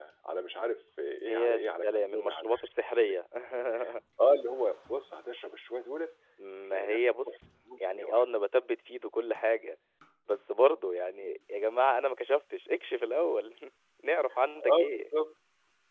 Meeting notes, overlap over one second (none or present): present